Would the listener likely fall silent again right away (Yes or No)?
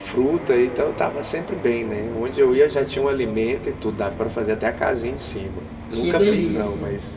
Yes